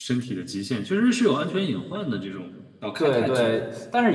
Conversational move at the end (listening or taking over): taking over